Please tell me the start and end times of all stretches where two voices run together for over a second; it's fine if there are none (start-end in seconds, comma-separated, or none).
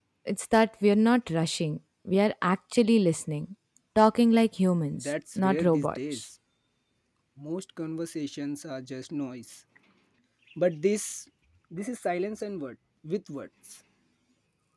4.9-6.2